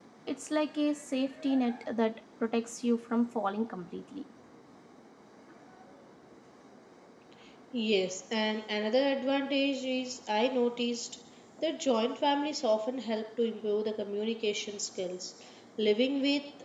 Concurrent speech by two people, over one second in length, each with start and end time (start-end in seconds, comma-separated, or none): none